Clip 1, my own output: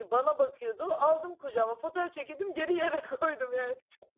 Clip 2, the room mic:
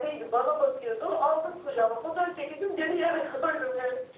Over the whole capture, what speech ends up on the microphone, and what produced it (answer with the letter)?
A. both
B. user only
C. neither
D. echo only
D